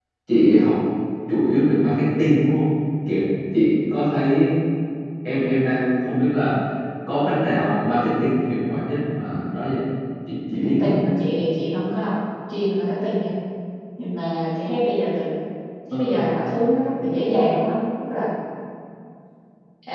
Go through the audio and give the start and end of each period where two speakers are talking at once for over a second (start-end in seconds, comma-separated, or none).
none